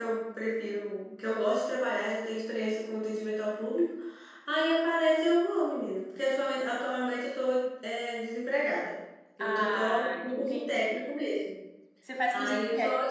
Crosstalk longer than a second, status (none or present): present